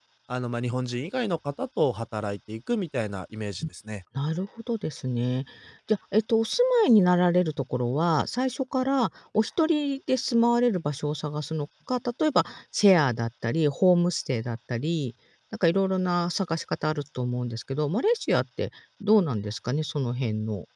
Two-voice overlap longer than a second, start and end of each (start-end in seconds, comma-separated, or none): none